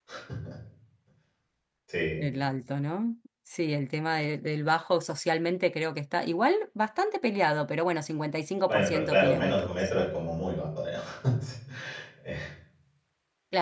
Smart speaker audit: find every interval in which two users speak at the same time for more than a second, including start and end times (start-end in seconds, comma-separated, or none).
8.7-9.9